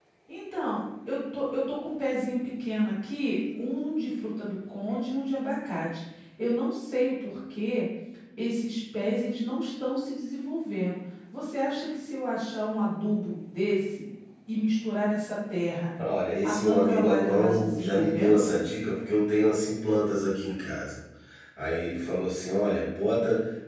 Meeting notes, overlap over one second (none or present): present